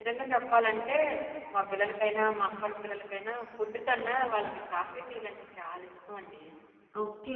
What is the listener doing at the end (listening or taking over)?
taking over